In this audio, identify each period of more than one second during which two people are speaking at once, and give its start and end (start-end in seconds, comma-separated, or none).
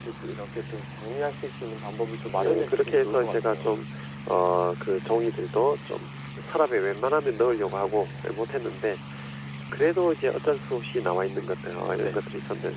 2.4-3.8